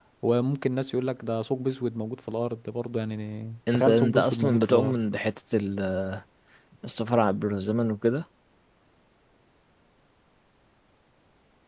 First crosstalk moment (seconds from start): 3.7 s

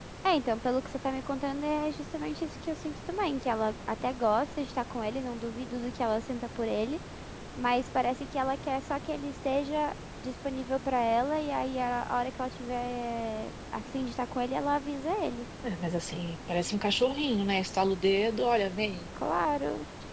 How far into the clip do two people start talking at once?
none

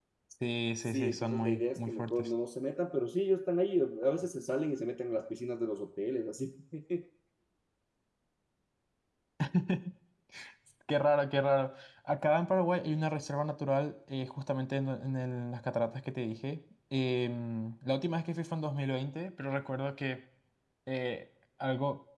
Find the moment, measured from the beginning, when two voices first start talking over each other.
0.8 s

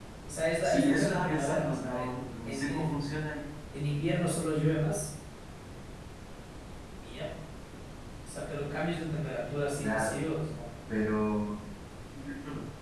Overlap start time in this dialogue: 0.6 s

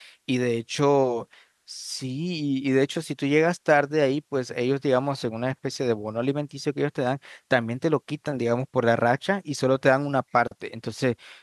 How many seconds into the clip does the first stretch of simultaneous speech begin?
none

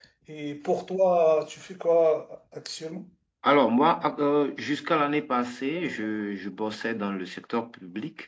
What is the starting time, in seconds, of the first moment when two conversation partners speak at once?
none

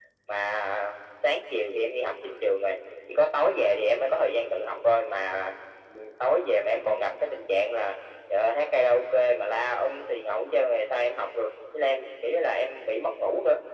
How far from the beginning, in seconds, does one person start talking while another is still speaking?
none

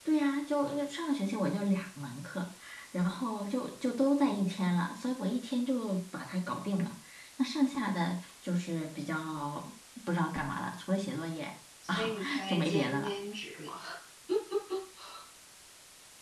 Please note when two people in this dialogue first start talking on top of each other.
11.8 s

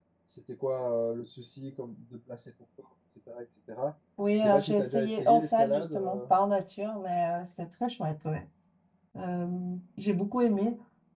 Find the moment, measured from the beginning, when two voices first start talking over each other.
4.2 s

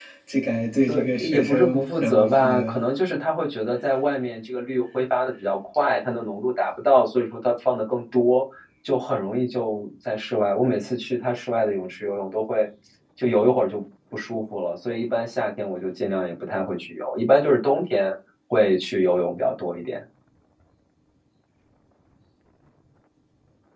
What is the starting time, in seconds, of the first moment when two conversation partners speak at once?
0.9 s

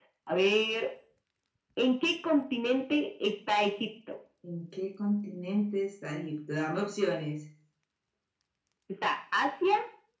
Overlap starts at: none

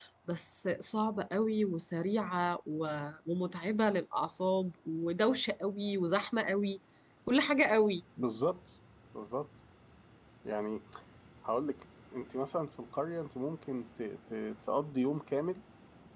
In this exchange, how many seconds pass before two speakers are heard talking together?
none

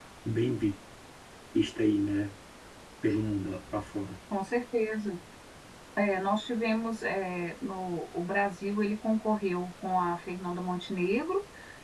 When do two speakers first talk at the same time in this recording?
none

